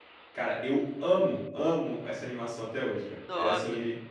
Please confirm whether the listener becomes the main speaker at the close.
No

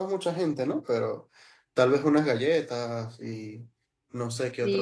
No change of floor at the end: No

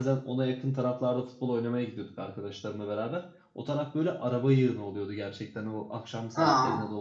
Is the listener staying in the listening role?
Yes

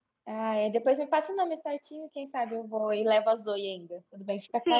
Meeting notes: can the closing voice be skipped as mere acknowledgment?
No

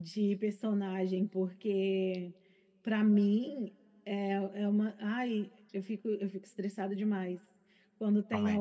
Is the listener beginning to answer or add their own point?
No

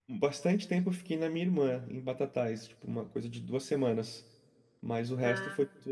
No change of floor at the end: Yes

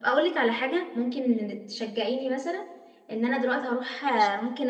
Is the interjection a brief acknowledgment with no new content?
Yes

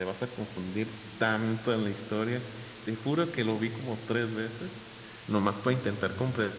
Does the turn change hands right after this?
No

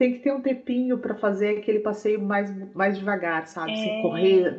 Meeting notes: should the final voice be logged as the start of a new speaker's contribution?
No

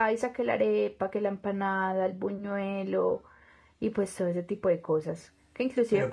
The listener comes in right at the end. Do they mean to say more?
No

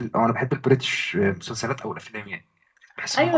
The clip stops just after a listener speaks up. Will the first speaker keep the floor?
No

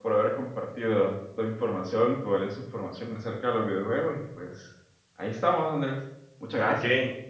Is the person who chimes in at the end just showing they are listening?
No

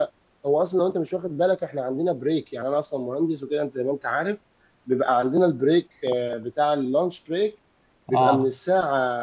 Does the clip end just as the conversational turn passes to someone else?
No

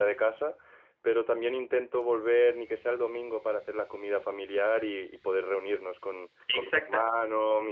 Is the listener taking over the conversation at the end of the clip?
No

